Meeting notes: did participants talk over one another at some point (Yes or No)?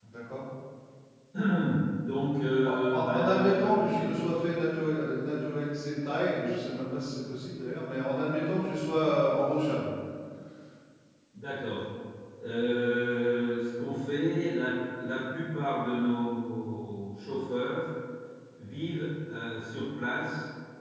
Yes